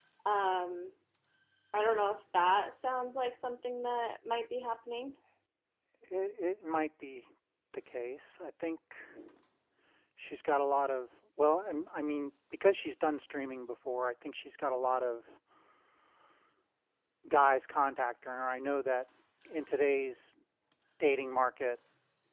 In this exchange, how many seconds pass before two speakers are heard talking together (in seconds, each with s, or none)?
none